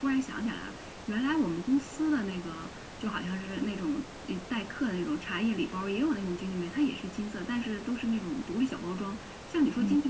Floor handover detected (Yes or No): No